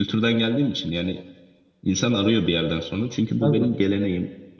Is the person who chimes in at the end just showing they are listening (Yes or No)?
Yes